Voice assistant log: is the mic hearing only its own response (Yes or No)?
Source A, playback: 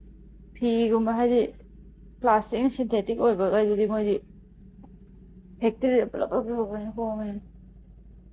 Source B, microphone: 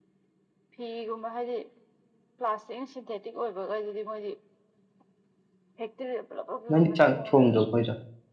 No